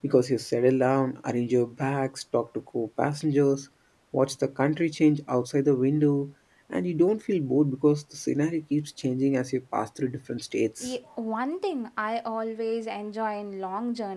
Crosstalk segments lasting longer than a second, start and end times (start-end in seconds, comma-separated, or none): none